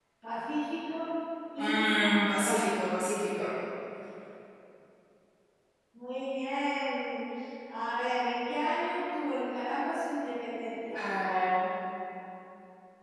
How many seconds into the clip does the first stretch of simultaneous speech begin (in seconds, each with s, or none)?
1.6 s